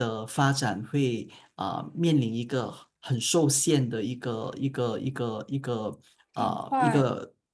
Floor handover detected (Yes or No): No